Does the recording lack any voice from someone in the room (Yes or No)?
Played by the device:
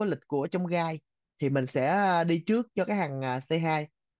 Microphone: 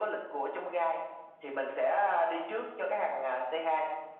Yes